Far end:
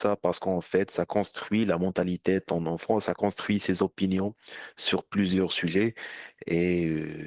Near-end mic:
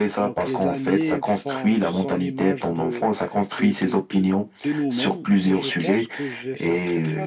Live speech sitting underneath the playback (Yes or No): Yes